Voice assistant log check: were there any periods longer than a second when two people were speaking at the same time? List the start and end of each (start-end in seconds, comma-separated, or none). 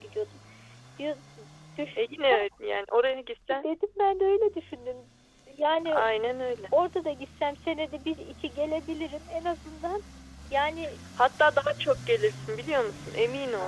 none